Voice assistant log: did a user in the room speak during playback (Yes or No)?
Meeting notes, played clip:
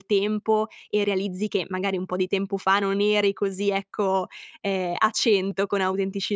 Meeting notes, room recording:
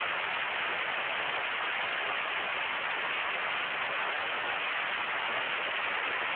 No